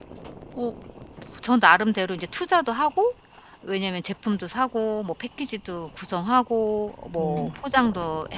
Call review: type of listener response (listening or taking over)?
listening